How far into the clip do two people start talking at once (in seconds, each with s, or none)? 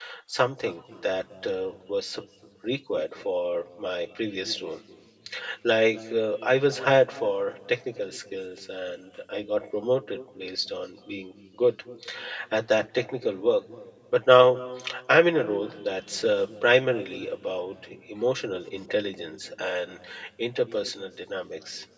none